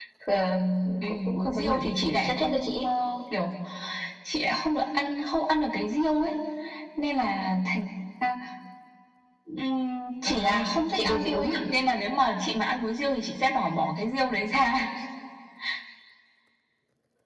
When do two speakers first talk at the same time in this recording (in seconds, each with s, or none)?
1.1 s